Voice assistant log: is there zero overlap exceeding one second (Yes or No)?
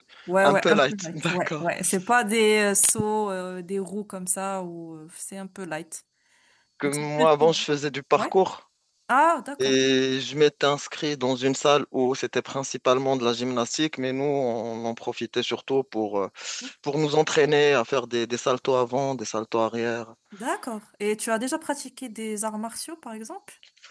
No